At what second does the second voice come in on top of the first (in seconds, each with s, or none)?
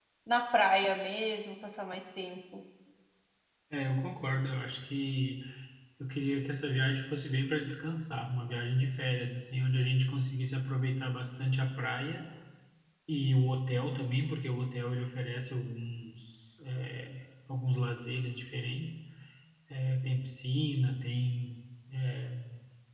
none